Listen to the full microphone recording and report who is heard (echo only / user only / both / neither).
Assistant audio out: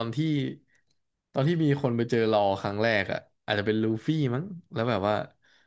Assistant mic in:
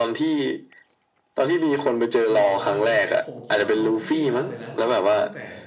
both